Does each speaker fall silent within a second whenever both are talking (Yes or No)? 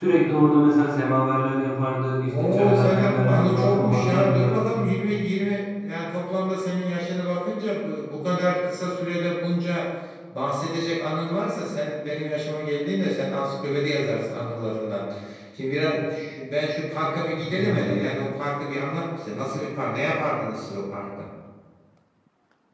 No